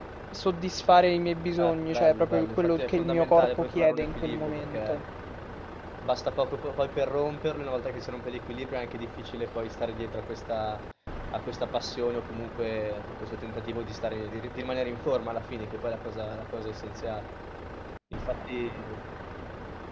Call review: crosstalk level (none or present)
present